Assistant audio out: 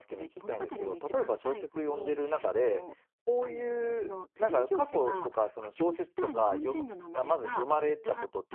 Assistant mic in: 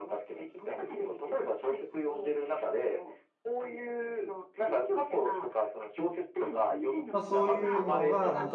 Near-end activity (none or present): present